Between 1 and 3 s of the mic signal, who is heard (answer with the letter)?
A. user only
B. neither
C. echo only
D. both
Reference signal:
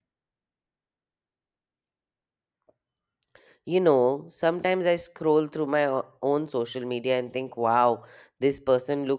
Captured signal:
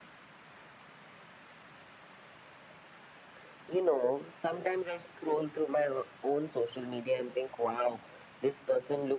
B